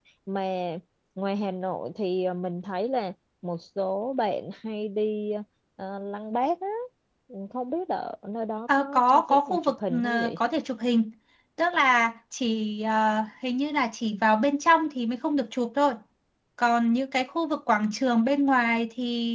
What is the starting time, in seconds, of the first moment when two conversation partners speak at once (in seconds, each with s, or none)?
8.7 s